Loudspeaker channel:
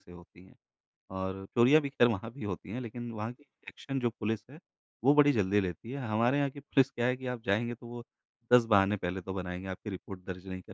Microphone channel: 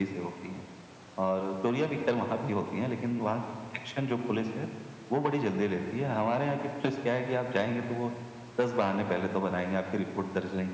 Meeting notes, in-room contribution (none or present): none